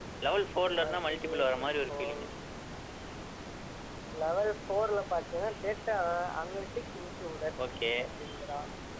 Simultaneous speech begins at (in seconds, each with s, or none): 0.8 s